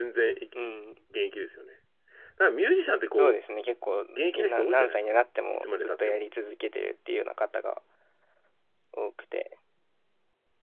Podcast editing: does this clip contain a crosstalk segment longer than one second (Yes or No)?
Yes